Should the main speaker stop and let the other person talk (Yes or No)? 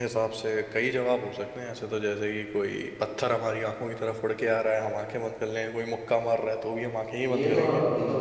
Yes